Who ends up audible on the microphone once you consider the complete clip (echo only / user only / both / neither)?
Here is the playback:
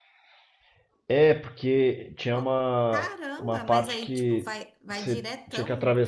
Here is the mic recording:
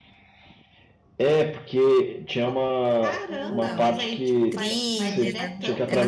both